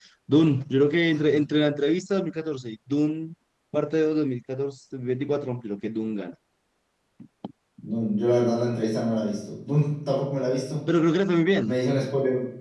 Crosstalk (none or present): none